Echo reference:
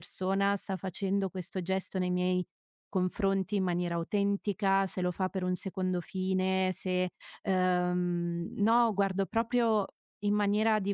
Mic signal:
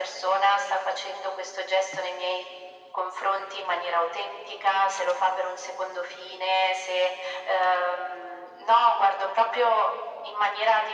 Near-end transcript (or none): none